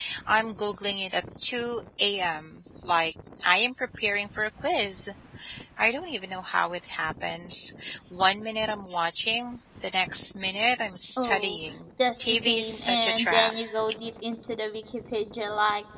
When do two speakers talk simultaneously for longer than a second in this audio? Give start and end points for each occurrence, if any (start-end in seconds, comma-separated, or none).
12.2-13.5